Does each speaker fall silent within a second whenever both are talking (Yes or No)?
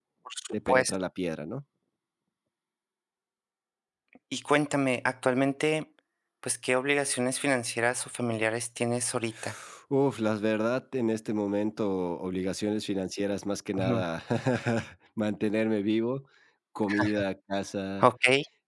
Yes